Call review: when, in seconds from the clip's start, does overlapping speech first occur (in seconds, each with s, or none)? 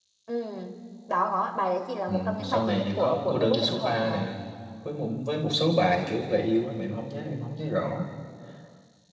2.1 s